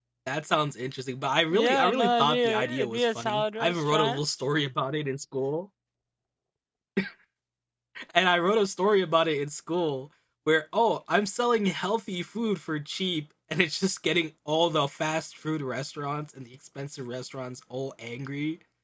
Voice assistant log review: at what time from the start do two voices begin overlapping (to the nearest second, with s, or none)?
2 s